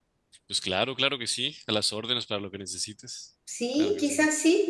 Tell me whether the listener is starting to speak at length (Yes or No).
Yes